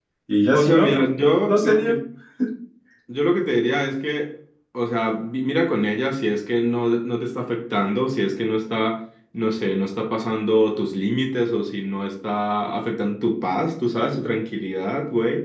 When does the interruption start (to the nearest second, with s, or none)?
1 s